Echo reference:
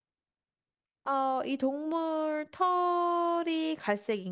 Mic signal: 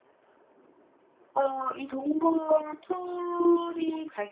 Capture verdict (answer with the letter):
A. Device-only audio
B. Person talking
A